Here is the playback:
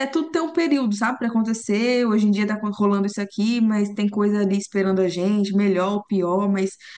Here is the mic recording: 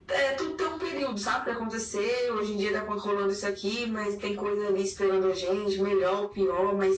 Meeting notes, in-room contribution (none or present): none